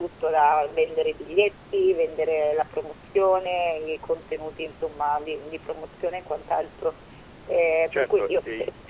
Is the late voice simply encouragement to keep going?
No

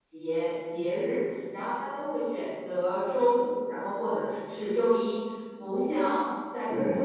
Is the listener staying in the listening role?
Yes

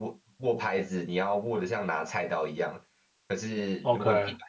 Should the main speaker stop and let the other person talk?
No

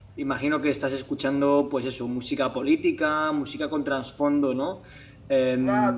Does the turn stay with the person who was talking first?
No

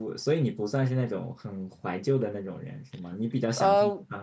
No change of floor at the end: No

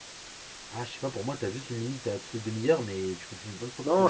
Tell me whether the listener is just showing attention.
No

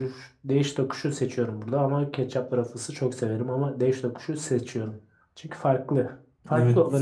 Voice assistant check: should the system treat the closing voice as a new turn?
Yes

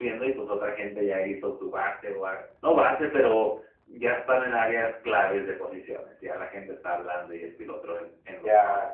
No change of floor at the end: No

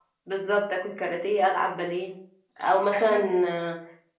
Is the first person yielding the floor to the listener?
No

